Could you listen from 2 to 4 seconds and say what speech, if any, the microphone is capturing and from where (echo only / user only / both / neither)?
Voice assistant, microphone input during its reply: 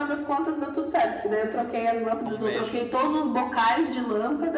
both